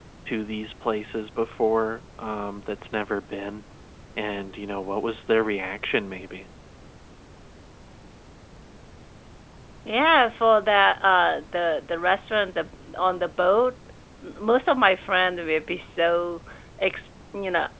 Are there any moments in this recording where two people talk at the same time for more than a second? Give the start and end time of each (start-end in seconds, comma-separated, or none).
none